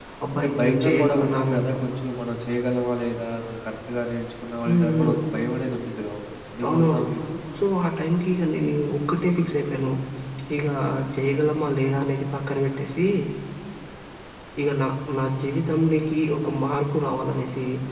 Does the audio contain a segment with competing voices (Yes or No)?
Yes